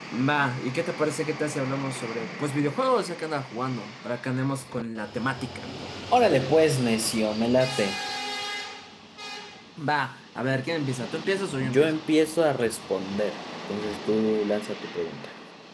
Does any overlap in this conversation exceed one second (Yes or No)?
No